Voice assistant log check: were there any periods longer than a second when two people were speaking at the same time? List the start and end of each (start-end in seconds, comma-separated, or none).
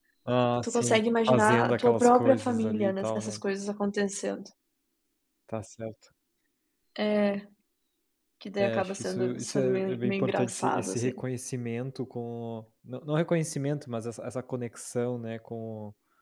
0.6-3.4, 8.6-11.2